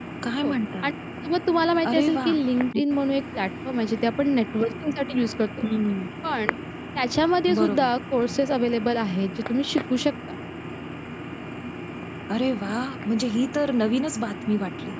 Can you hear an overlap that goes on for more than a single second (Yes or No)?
No